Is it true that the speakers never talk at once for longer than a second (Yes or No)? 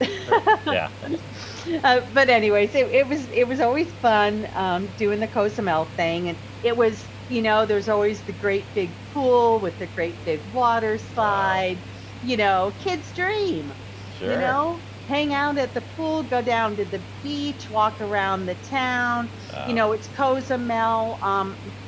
Yes